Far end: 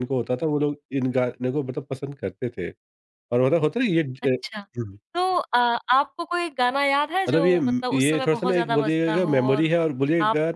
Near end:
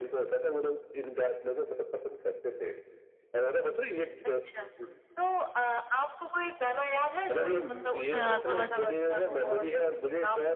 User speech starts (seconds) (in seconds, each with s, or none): 8.1 s